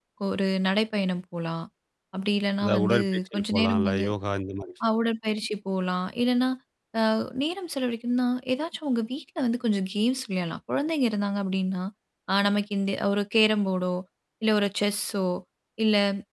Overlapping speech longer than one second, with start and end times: 2.6-4.1

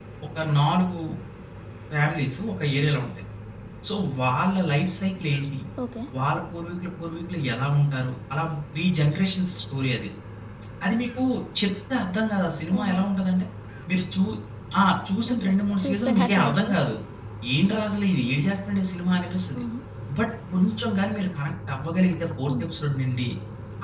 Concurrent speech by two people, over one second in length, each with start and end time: 15.3-16.7

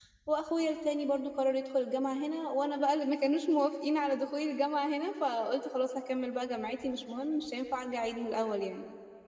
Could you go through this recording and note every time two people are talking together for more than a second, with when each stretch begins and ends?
none

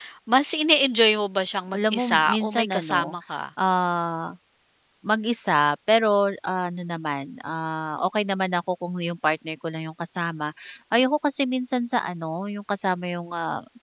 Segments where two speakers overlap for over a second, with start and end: 1.7-3.0

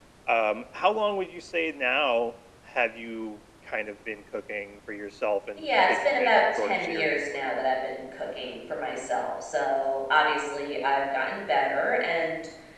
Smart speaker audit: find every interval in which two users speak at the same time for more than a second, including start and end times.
5.6-7.5

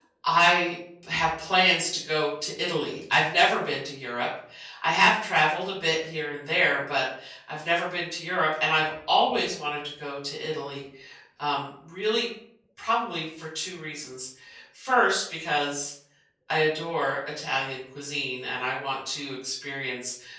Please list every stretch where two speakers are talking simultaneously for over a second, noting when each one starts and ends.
none

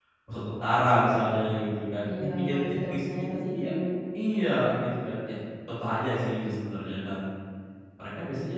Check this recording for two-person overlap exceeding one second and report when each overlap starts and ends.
2.0-3.7

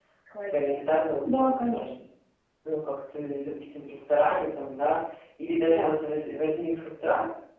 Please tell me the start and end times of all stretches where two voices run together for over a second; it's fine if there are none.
0.5-1.9

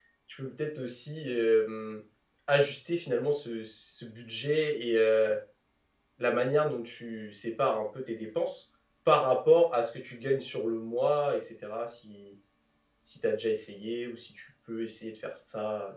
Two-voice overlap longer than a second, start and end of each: none

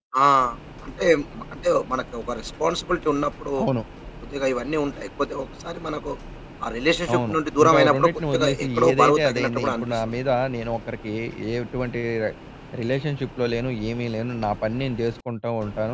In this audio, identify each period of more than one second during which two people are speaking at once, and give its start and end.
7.1-10.0

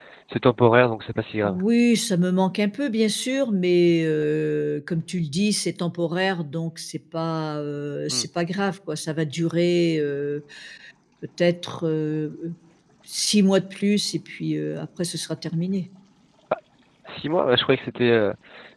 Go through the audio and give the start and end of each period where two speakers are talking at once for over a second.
none

